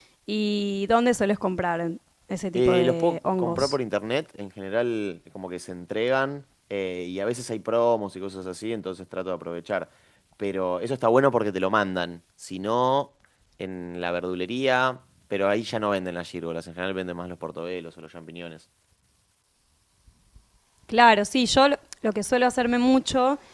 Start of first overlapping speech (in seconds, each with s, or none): 2.6 s